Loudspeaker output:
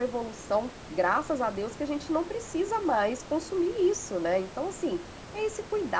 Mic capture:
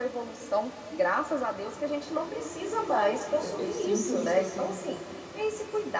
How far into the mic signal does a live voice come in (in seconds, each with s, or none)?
3.4 s